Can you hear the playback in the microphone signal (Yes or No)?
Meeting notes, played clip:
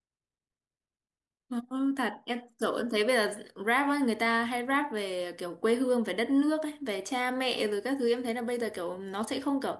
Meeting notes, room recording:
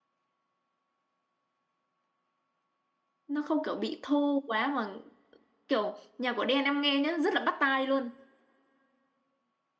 No